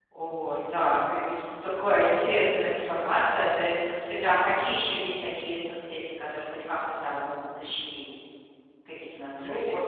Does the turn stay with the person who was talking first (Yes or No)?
No